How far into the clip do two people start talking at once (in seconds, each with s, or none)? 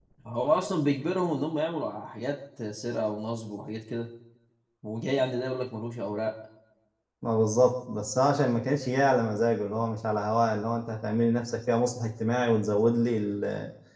none